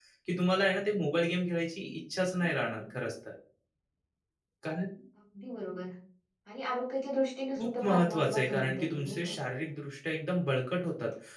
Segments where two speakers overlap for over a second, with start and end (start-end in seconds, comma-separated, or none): 7.6-9.4